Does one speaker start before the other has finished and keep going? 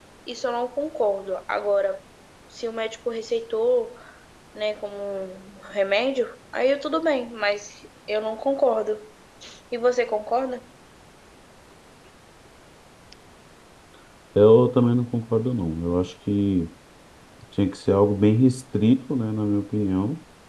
No

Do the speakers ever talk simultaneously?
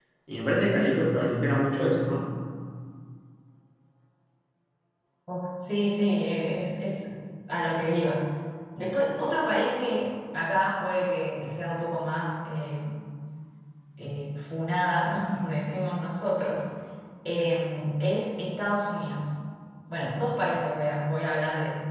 No

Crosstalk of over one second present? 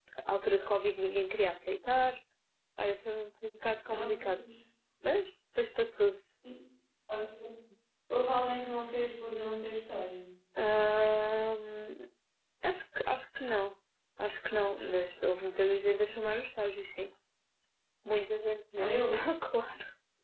No

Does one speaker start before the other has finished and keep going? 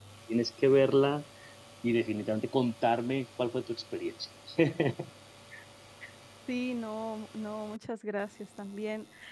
No

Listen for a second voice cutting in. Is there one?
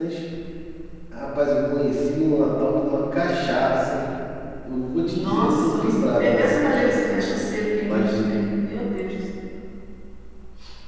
Yes, from 5.0 s

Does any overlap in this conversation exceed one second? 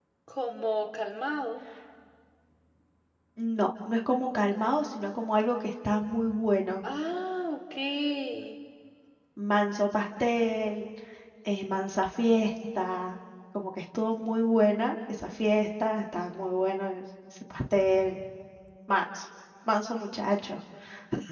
No

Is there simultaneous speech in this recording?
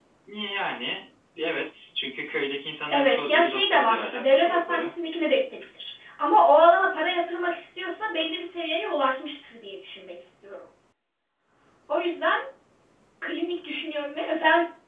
Yes, from 2.9 s

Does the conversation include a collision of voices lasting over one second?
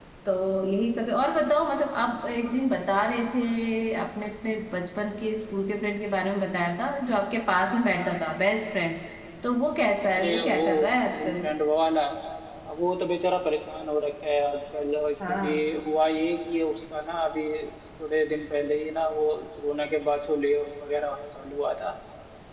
Yes, from 10.2 s

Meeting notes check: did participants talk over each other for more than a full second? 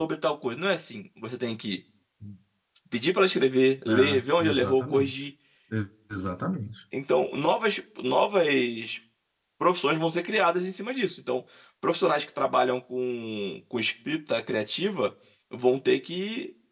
Yes, from 3.9 s

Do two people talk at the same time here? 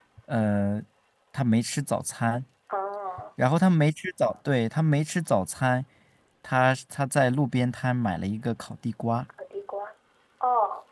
No

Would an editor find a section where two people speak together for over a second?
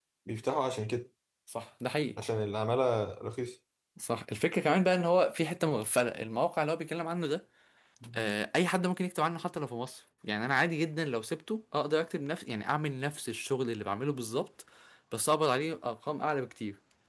No

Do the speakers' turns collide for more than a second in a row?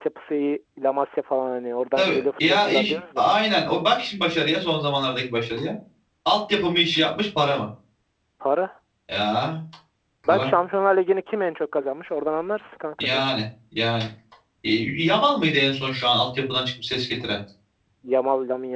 Yes, from 2.0 s

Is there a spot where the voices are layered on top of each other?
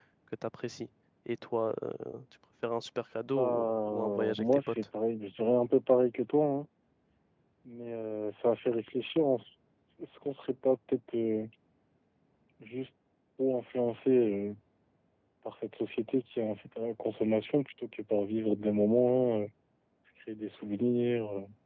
Yes, from 3.3 s

